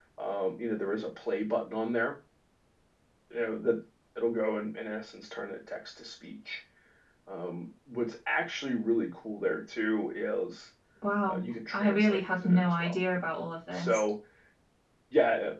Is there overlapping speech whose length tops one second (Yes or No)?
Yes